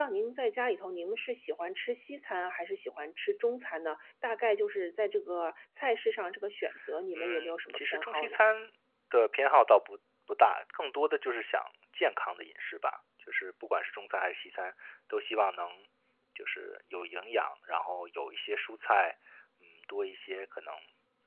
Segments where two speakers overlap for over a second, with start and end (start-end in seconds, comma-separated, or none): 7.1-8.4